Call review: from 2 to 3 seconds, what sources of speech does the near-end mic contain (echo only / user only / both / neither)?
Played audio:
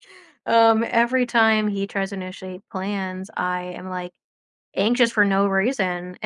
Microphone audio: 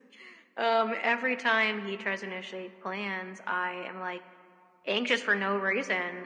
echo only